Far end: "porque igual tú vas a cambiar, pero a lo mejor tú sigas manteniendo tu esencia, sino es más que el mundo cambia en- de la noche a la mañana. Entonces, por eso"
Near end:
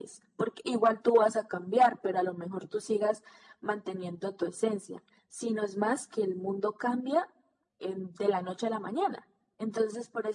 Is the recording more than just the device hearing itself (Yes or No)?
No